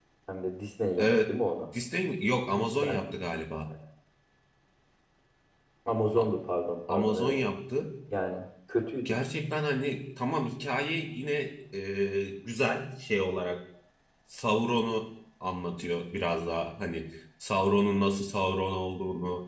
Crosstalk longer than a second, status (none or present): none